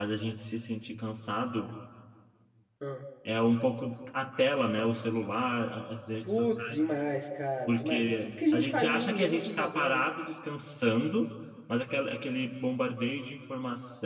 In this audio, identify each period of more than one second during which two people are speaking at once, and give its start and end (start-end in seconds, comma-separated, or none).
7.7-10.0